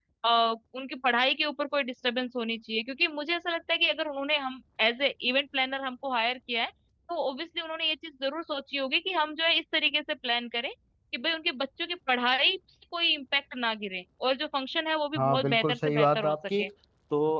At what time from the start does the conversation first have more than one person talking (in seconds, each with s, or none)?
15.2 s